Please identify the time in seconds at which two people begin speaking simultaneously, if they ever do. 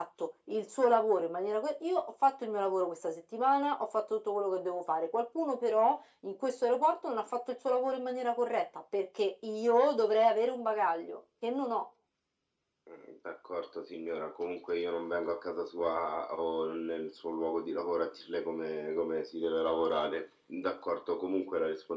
none

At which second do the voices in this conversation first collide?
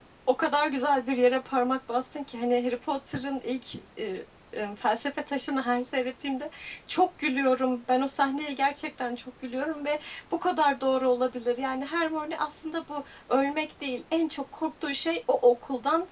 none

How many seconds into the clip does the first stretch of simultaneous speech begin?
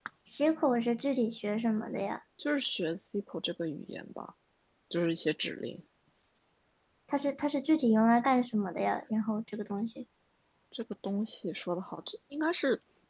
none

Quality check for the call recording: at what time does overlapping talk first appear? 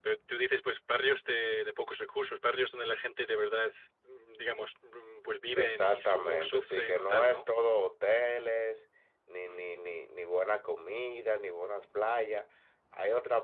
5.6 s

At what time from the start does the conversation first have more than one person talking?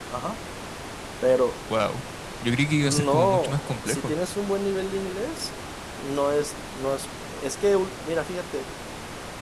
2.8 s

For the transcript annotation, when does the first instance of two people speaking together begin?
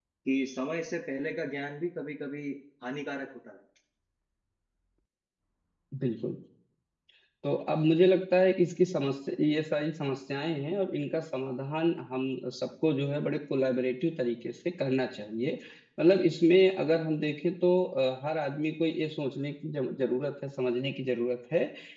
none

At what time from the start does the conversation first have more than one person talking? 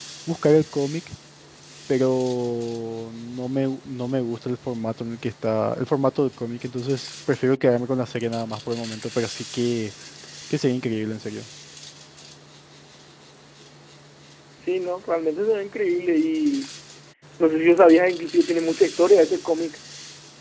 none

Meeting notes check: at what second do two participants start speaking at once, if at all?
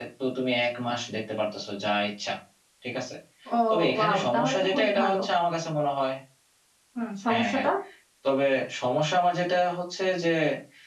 4.0 s

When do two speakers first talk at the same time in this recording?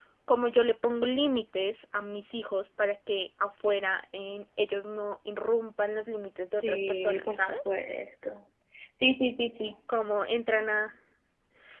6.6 s

